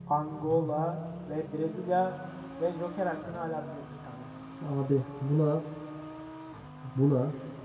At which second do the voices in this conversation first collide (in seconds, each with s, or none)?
none